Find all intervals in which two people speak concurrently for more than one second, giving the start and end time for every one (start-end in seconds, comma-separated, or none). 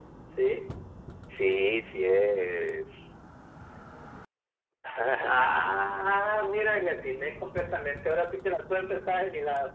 none